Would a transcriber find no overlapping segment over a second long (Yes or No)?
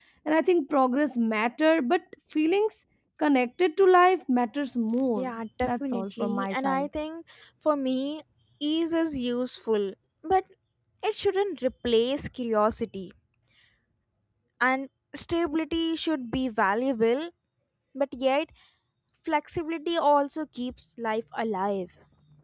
No